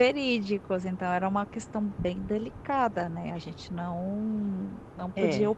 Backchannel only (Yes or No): Yes